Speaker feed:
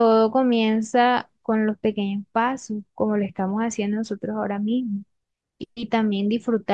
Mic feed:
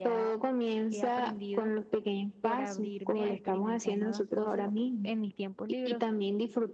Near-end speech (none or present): present